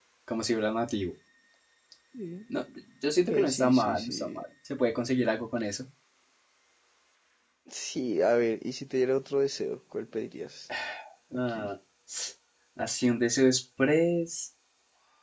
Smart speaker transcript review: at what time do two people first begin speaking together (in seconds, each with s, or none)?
3.2 s